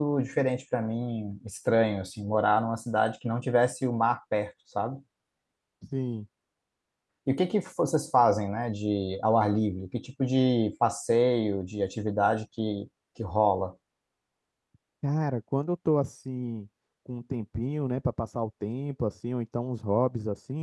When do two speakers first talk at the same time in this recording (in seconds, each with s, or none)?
none